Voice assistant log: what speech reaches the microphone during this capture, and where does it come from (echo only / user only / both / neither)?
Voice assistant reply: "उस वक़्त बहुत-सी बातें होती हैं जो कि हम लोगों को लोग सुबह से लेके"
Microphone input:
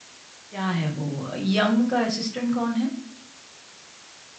user only